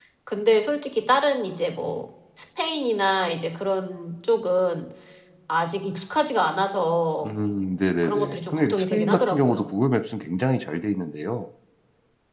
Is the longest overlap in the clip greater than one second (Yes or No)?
Yes